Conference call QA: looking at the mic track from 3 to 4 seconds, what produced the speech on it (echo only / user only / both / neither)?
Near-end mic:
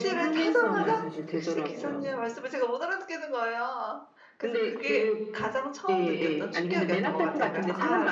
user only